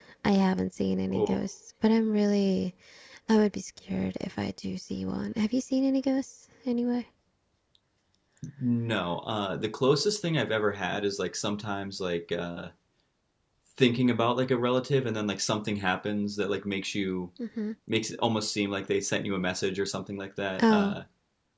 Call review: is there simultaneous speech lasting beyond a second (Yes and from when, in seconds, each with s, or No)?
No